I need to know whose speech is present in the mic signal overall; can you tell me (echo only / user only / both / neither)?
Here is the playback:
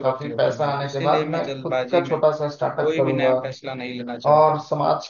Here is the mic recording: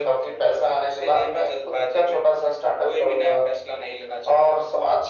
echo only